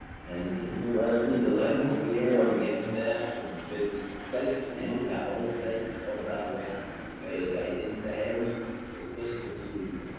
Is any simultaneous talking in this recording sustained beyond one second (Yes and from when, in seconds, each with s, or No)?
Yes, from 1.3 s